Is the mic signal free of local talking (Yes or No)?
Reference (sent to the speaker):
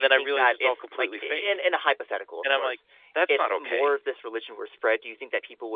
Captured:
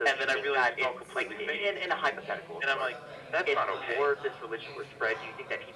No